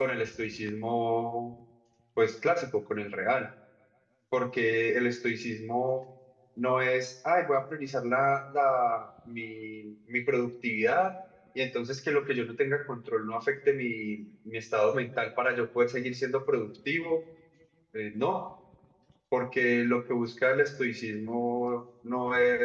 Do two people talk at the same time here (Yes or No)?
No